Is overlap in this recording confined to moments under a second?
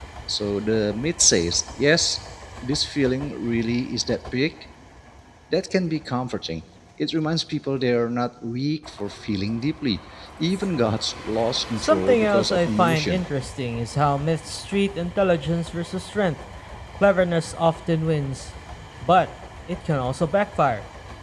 No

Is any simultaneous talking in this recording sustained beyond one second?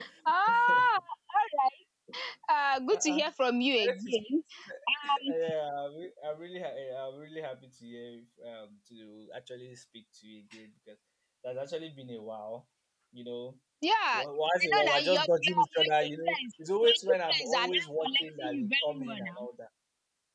Yes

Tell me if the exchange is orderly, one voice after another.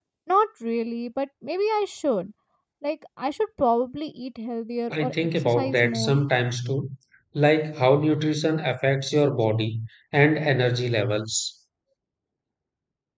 No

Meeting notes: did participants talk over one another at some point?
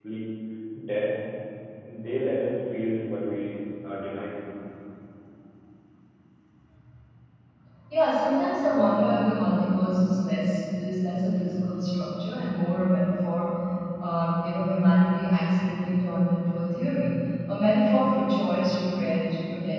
No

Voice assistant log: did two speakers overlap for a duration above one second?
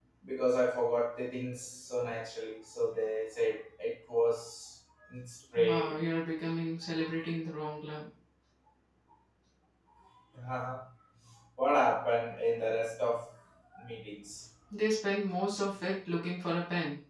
No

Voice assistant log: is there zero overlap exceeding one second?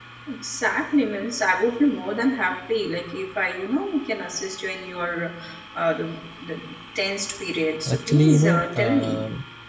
No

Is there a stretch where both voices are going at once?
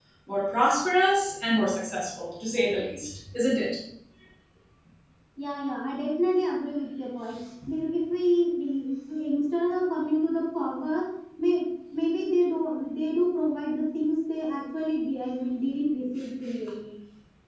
No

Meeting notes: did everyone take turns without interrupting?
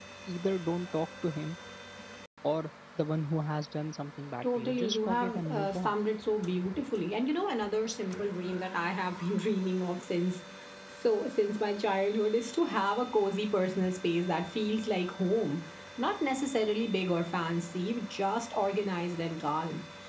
No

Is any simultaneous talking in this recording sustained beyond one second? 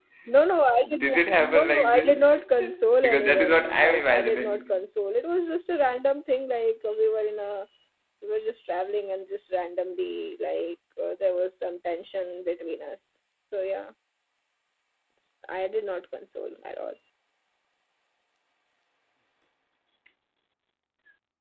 Yes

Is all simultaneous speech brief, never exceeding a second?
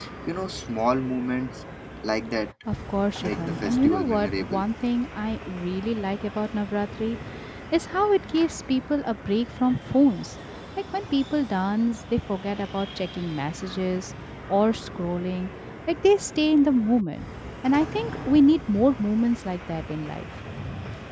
No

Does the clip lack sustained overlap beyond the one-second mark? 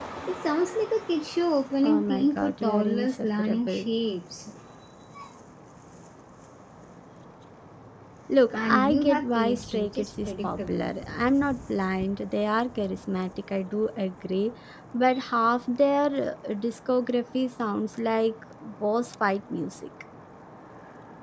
No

